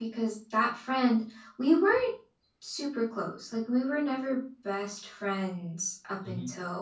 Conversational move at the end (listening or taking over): listening